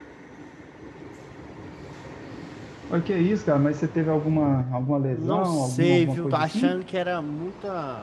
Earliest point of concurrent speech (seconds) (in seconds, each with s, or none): 5.1 s